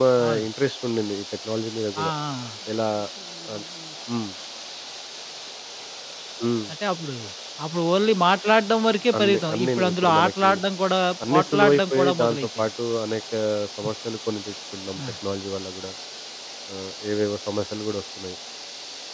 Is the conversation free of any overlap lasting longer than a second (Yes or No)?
No